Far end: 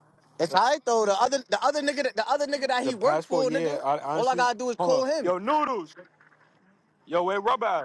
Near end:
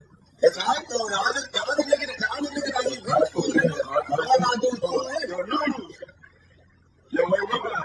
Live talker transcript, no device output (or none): none